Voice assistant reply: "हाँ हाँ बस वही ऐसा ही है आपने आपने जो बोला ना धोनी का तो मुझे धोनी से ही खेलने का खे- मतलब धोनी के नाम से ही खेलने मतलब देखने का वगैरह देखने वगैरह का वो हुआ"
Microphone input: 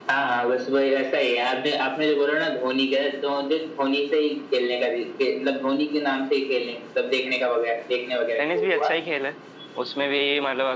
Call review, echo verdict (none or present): present